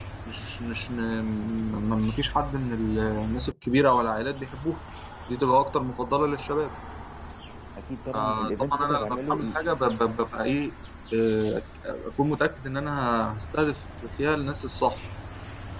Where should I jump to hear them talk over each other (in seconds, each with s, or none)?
8.1 s